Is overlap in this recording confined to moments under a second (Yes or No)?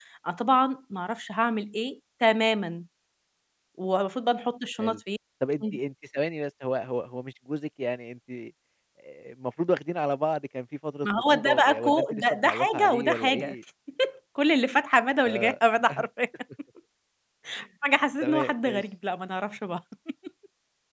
No